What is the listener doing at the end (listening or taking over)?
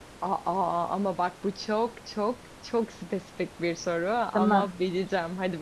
listening